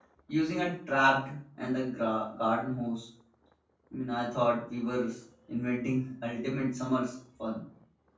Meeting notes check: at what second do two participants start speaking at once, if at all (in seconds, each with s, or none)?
none